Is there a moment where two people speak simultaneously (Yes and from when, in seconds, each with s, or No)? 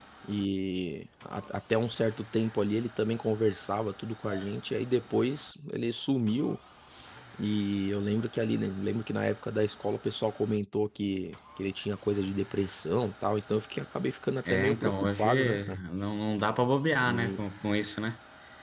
Yes, from 14.5 s